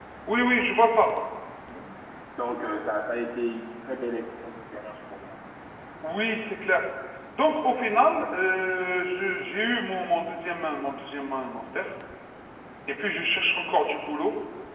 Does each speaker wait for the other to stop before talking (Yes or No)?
Yes